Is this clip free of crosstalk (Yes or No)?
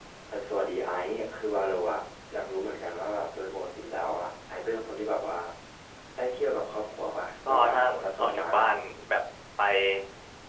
No